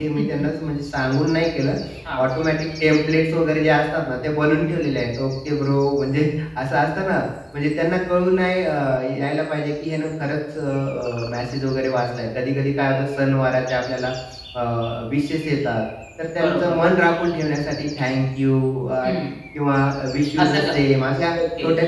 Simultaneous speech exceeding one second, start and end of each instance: none

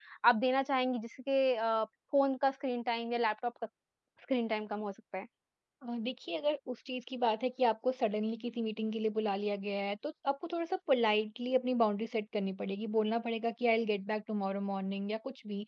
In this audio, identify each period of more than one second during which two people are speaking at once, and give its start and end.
none

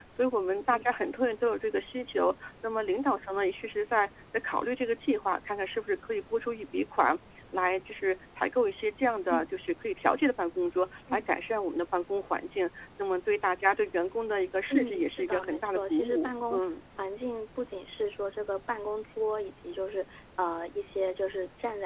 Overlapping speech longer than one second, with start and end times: 14.7-16.6

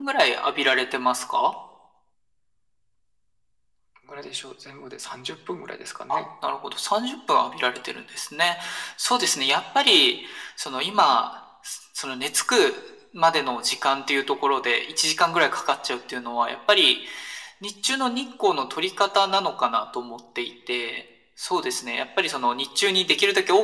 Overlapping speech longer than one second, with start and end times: none

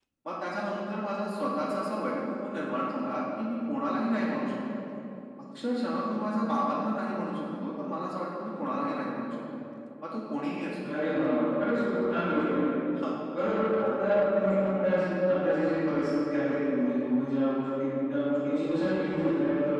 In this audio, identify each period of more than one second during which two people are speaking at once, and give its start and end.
none

